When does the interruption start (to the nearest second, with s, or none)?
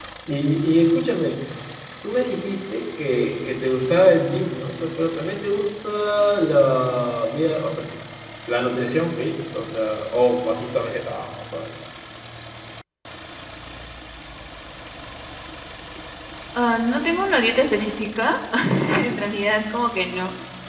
none